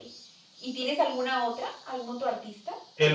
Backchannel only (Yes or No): No